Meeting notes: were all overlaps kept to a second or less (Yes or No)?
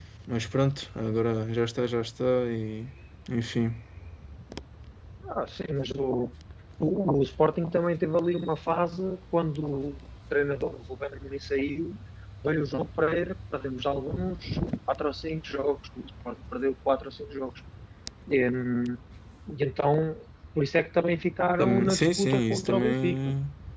No